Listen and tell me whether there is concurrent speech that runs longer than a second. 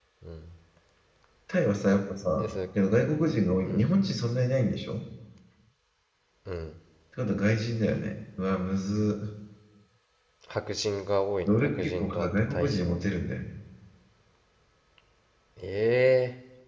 Yes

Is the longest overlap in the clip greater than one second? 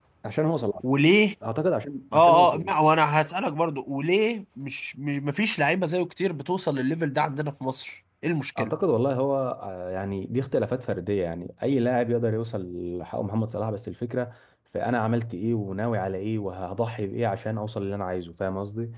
No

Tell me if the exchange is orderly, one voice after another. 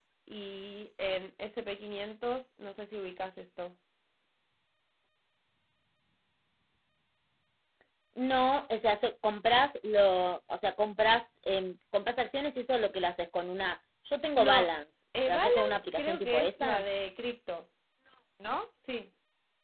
No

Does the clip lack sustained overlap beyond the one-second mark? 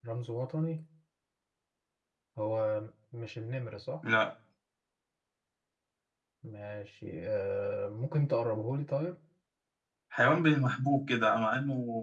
Yes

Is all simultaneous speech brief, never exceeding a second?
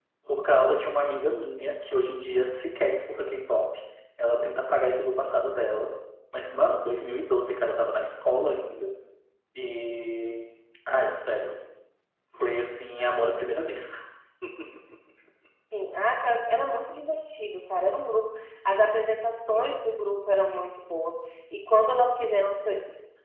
Yes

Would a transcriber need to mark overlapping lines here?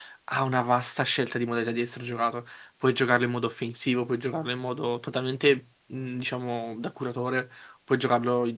No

